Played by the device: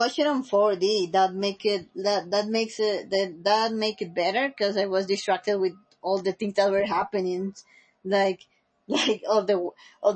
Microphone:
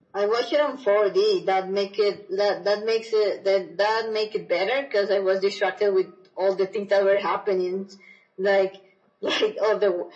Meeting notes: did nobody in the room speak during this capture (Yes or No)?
Yes